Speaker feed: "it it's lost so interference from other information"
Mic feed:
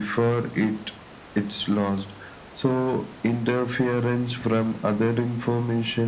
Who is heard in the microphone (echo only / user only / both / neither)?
echo only